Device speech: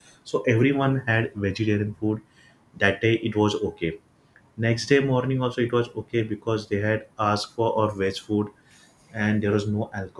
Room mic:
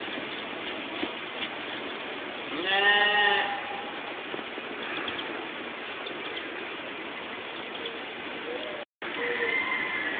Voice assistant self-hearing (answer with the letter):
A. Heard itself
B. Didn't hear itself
B